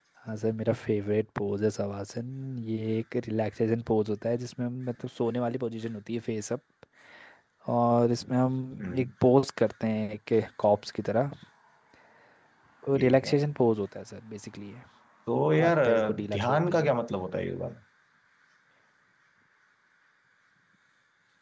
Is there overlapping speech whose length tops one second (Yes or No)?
Yes